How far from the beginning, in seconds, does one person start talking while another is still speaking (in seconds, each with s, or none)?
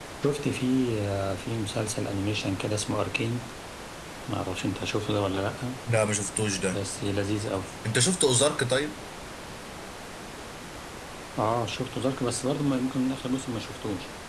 none